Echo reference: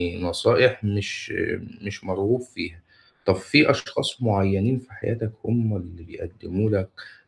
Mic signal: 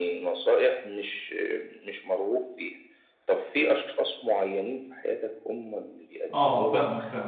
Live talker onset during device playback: 6.3 s

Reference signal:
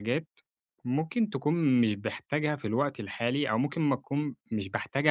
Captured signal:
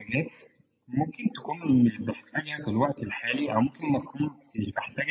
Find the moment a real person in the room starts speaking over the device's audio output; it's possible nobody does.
none

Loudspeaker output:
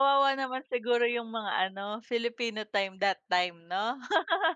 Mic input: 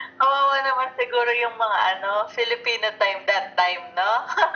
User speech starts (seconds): none

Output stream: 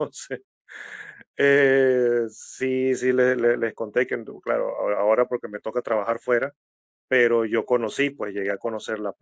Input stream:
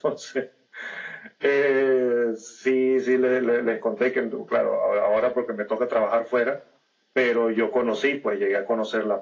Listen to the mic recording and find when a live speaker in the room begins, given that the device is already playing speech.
none

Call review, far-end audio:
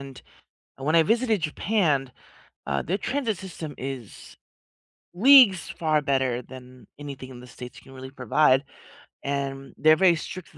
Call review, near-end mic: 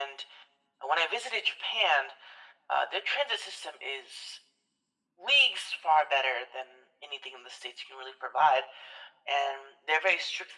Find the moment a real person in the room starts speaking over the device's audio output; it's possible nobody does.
none

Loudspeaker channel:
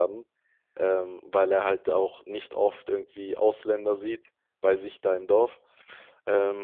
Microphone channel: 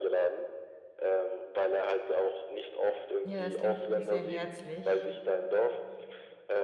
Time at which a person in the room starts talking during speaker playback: 3.2 s

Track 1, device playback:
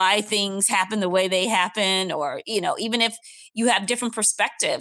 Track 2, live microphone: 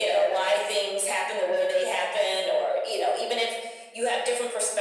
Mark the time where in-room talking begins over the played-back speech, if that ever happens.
none

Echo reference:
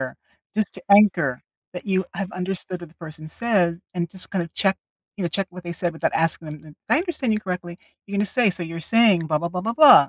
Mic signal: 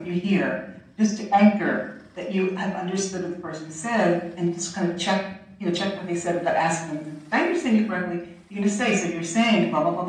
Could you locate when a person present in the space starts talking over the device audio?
none

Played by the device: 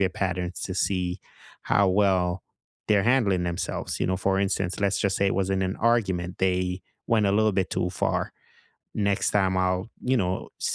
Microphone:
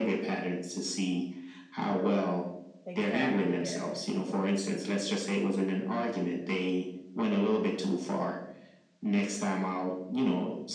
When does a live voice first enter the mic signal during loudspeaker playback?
2.9 s

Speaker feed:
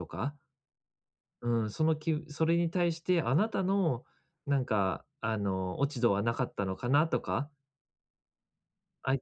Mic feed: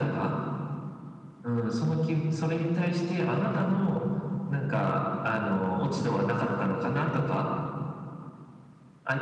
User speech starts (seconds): none

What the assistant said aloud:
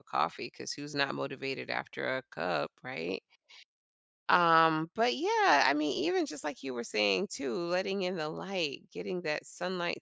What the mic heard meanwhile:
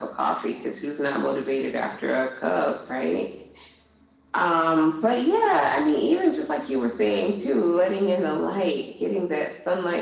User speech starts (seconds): none

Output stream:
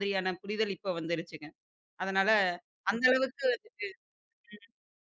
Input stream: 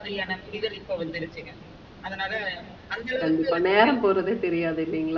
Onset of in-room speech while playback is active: 3.2 s

